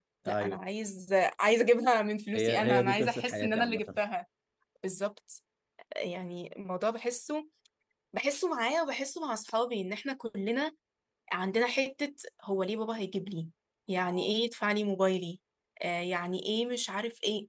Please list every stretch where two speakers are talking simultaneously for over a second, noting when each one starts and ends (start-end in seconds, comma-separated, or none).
2.3-4.0